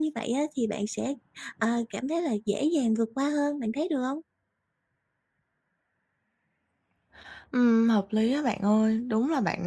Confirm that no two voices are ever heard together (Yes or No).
Yes